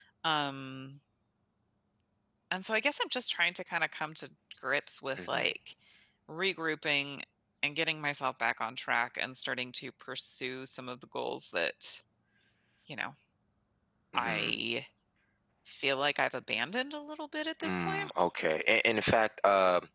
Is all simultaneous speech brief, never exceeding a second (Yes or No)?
Yes